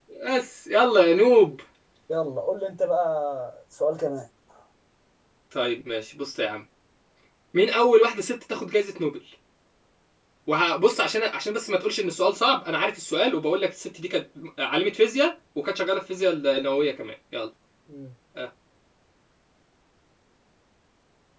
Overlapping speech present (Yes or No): No